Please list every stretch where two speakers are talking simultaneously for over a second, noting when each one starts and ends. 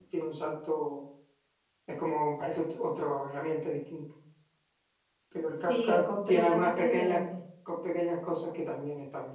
5.6-7.2

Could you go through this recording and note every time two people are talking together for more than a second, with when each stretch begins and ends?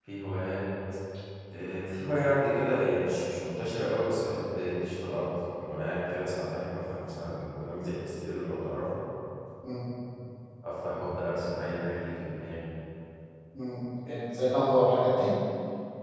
none

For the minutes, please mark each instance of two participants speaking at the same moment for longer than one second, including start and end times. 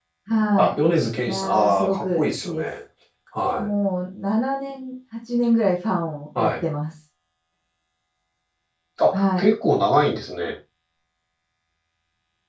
1.3-2.6

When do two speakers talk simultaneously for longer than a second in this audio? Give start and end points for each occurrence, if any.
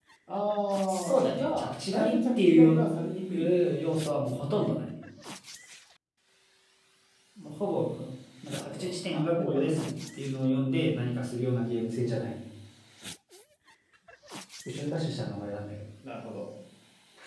0.9-2.8, 8.5-9.9

